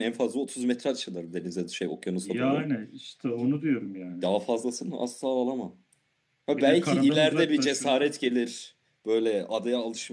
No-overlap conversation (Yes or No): No